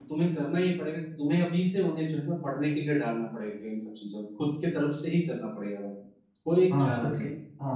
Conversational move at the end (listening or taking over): taking over